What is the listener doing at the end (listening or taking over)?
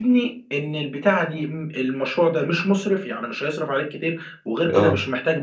listening